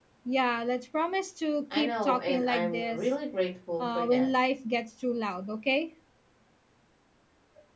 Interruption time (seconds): 1.7 s

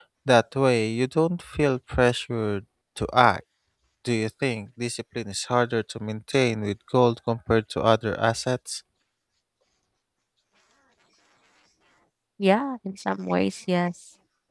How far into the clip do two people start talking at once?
none

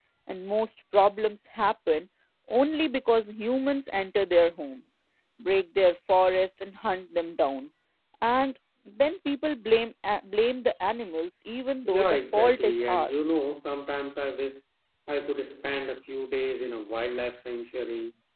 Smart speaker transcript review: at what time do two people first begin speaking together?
11.8 s

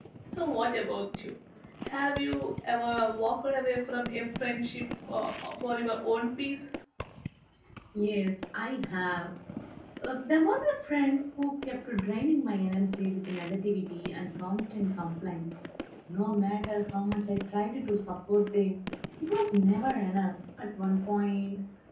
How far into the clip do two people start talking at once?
none

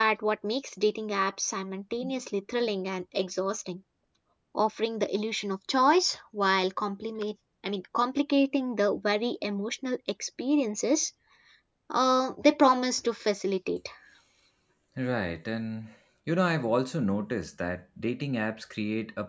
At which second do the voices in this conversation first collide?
none

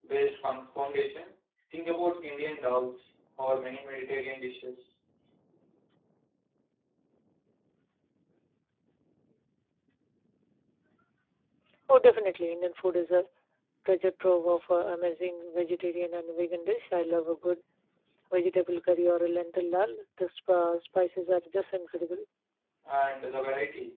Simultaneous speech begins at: none

